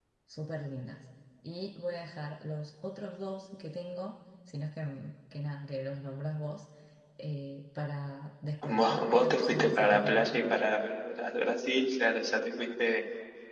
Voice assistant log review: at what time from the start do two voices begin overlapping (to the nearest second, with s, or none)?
9 s